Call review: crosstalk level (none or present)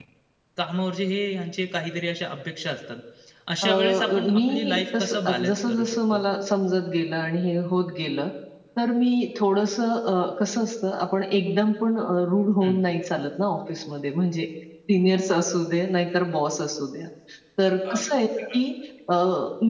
present